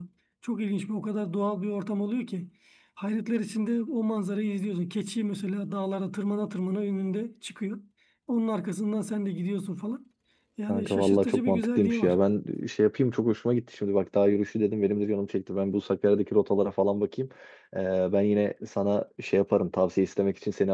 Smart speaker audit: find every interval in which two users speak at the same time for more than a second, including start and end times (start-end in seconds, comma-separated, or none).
10.6-12.2